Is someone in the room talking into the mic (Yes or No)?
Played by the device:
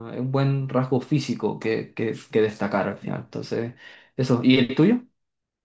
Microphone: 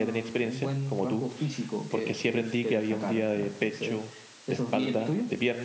Yes